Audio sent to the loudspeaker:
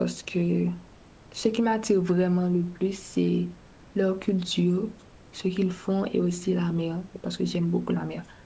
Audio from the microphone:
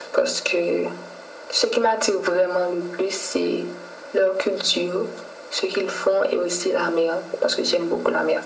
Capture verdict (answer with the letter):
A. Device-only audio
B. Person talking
A